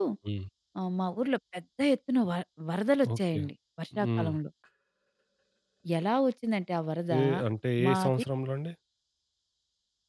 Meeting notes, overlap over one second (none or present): none